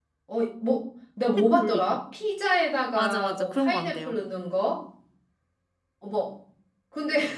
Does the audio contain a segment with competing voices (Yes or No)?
Yes